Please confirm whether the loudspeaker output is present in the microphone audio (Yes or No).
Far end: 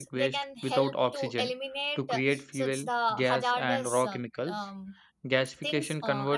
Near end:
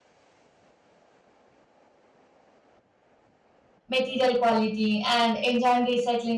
No